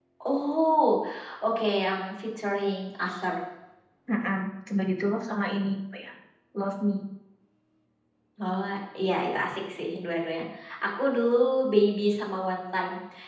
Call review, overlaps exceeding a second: none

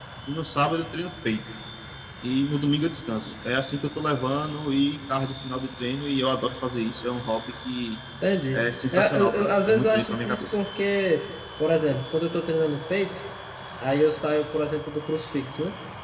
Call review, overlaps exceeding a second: present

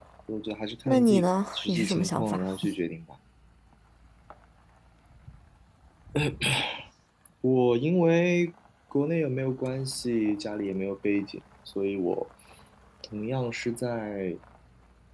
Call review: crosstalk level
present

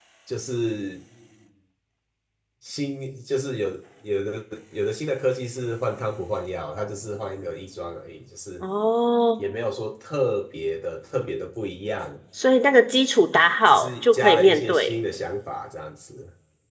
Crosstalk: present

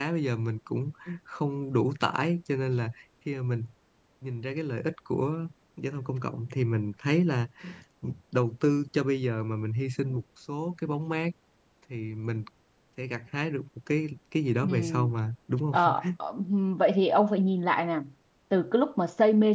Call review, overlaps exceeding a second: none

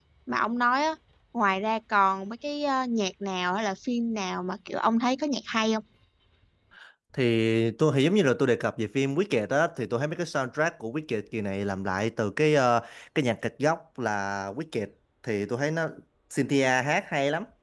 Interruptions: none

